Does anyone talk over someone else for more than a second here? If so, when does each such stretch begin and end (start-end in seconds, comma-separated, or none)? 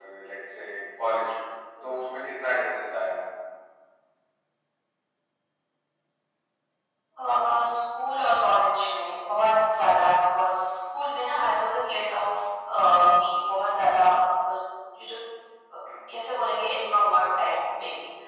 none